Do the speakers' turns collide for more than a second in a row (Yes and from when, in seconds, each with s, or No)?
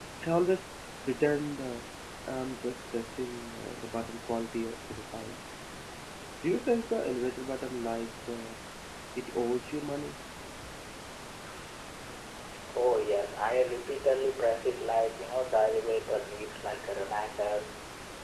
No